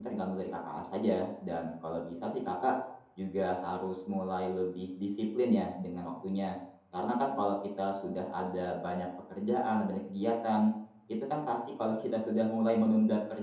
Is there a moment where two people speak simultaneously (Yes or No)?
No